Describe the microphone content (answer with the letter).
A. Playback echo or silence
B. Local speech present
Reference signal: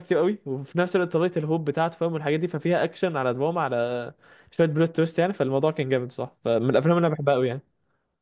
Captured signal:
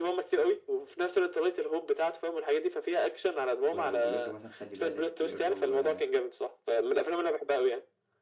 B